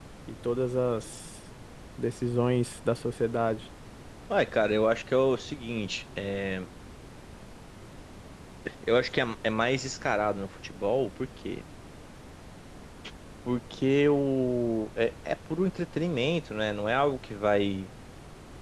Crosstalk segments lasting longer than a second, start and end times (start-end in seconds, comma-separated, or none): none